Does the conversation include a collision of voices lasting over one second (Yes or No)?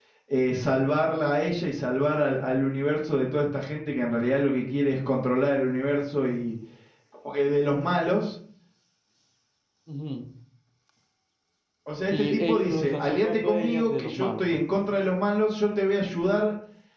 Yes